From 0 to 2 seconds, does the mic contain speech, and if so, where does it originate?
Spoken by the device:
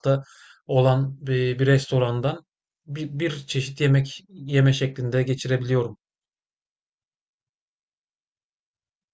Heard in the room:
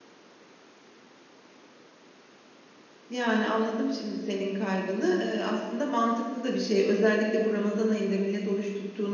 neither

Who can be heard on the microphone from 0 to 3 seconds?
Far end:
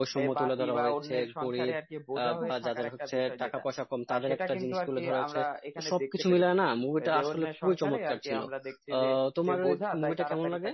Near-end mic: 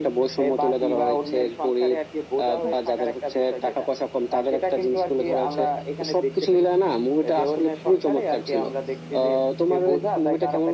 echo only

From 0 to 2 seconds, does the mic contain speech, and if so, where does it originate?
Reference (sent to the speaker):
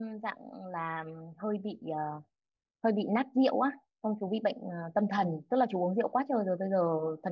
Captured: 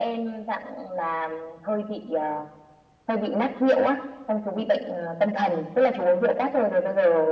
echo only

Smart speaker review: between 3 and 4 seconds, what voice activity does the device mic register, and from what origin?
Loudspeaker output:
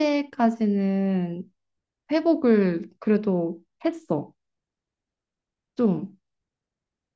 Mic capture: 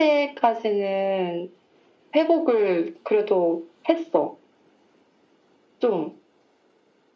echo only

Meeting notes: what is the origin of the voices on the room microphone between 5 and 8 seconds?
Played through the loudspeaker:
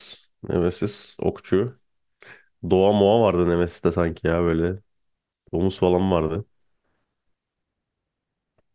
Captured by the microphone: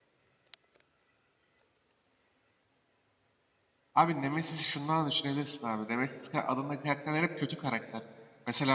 user only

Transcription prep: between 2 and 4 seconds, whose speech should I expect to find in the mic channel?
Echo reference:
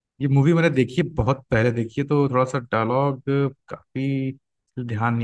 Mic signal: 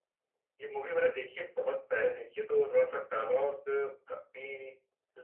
echo only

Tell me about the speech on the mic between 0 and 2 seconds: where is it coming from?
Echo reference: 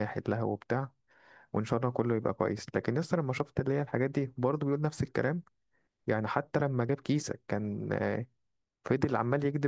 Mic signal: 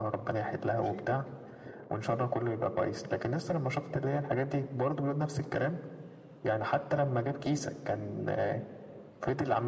both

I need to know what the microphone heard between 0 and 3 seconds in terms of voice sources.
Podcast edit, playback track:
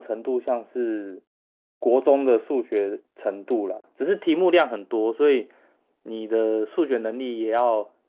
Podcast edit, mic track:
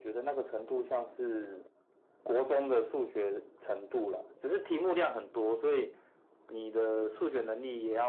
echo only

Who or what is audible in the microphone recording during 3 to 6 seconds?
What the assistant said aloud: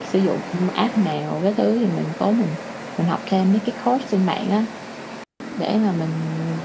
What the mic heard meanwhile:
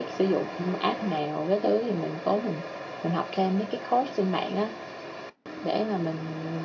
echo only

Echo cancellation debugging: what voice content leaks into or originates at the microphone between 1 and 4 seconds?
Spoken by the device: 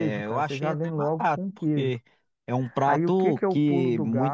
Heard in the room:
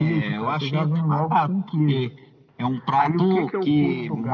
echo only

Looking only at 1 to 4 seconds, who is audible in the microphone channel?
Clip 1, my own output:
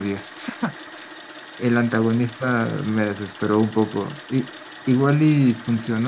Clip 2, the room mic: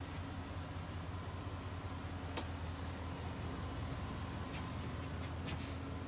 neither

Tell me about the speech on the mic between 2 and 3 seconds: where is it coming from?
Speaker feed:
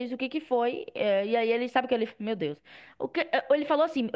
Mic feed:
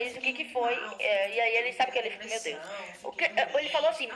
both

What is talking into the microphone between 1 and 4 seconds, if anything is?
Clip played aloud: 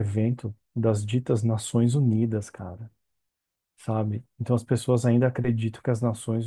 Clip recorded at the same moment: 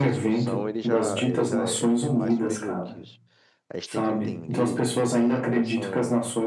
both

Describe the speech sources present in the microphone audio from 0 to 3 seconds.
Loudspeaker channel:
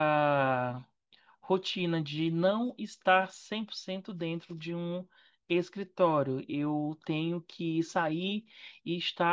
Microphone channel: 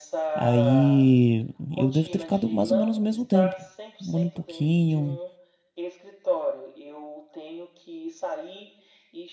both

